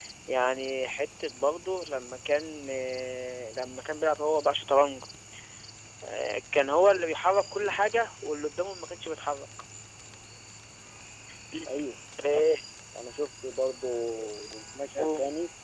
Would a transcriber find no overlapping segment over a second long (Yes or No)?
Yes